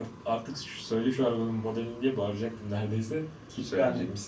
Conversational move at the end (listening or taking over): taking over